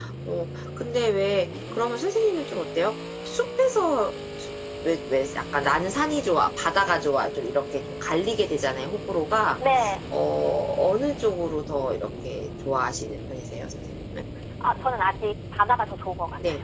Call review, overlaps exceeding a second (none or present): none